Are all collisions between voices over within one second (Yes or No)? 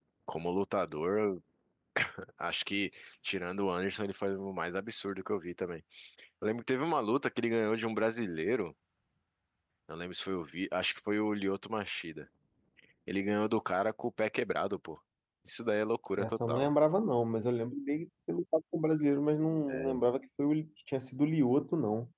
Yes